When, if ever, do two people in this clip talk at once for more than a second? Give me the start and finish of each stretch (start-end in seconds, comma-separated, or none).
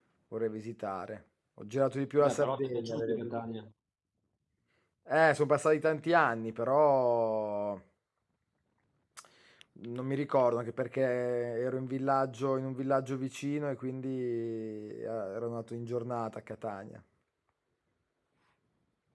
2.2-3.5